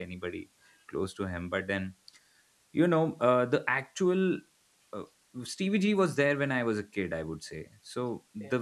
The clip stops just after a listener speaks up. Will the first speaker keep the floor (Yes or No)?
Yes